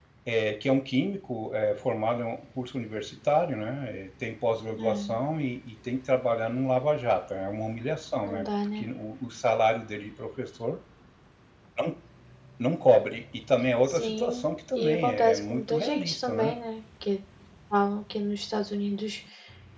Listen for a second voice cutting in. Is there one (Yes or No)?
Yes